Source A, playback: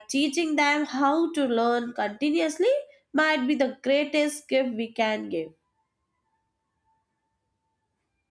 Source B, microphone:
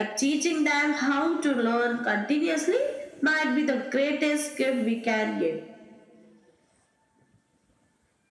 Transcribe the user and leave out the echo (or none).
none